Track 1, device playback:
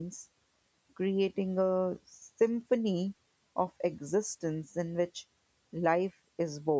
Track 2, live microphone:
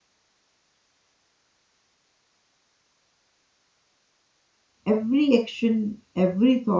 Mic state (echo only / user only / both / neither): user only